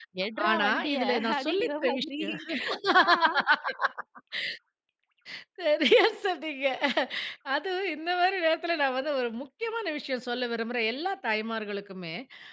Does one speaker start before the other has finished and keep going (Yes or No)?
Yes